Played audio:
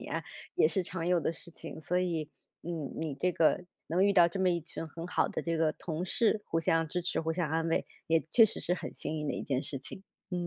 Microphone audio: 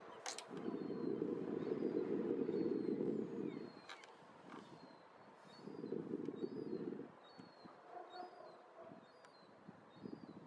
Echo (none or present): none